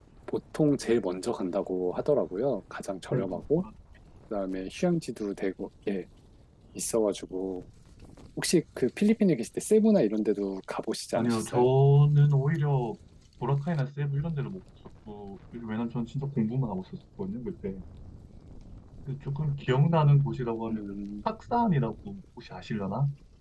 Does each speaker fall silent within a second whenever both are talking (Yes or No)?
Yes